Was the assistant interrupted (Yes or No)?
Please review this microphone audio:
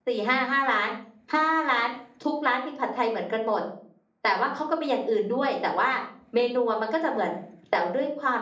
Yes